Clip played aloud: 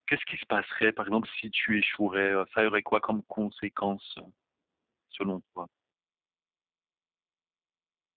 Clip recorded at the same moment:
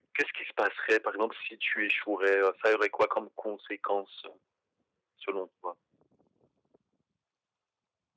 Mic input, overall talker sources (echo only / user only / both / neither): echo only